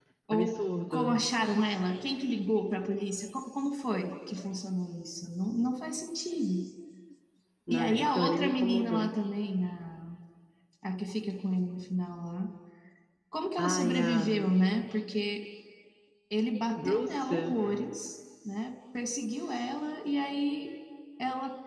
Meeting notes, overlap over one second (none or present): present